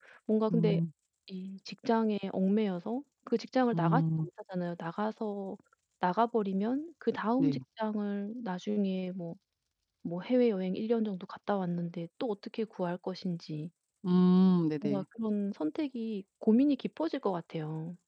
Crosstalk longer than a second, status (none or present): none